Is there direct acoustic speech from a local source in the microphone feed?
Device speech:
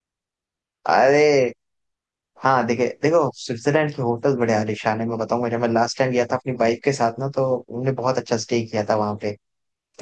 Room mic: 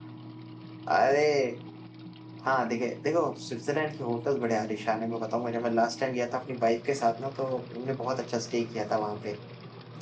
No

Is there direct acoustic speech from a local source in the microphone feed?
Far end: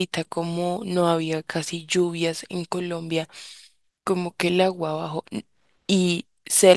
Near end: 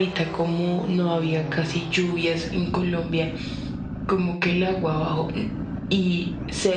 No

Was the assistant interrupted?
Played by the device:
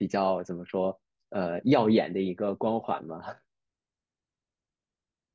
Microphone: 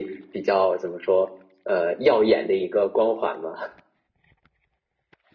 No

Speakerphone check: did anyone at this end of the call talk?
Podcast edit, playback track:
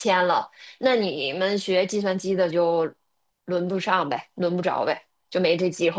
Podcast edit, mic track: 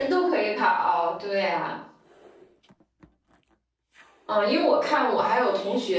Yes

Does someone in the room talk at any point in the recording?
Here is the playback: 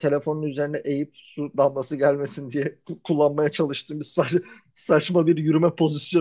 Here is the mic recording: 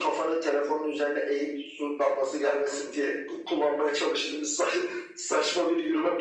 No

